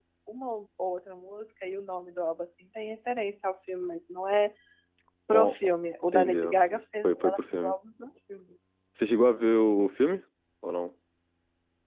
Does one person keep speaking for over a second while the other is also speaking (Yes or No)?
Yes